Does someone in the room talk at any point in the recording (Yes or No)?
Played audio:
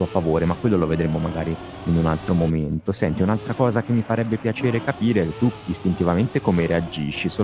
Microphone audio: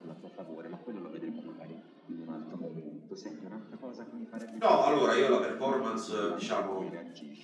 Yes